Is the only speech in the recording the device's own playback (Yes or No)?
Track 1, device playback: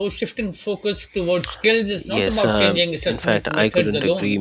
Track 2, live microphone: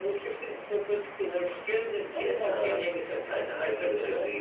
Yes